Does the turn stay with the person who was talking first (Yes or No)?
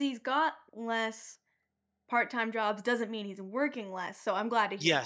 No